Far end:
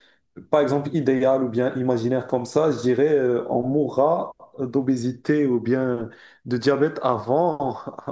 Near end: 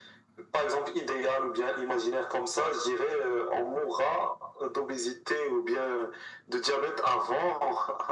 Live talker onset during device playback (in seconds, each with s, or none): none